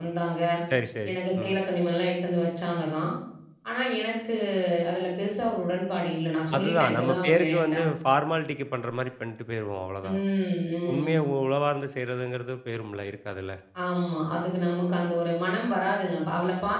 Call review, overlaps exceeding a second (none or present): present